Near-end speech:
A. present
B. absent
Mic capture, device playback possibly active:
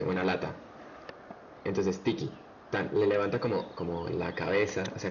B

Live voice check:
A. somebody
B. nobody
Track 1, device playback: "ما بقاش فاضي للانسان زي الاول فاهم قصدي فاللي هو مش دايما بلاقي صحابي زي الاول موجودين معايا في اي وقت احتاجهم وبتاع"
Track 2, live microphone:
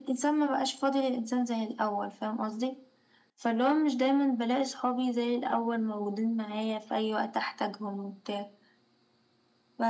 B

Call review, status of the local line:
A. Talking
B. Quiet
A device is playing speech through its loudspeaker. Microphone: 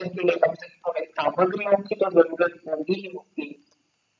B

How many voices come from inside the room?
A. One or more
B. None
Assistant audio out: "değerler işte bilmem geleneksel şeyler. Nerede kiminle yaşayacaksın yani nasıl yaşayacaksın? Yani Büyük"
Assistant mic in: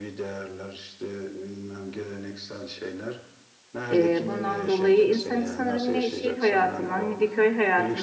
A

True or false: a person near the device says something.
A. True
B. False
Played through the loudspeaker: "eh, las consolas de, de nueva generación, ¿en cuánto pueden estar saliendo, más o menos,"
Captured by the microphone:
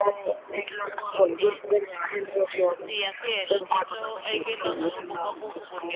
A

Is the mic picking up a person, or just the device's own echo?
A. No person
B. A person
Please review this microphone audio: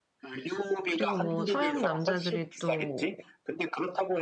B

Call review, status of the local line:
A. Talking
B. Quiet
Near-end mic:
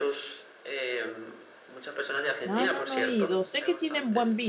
A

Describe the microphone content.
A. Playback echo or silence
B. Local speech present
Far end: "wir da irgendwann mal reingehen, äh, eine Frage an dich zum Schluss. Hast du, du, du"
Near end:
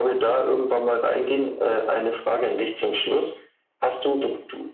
A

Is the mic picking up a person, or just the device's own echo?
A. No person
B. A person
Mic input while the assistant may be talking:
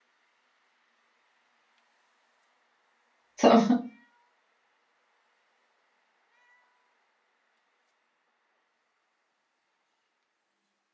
B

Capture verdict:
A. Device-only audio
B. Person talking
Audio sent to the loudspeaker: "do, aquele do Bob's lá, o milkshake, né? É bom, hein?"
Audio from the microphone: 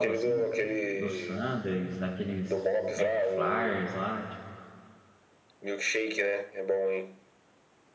B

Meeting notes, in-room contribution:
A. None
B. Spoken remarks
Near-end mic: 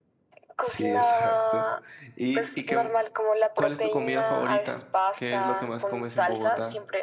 B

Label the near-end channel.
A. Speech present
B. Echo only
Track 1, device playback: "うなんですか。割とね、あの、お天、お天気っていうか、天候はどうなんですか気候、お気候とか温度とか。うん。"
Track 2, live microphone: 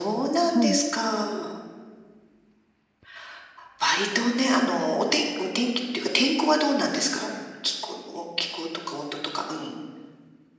A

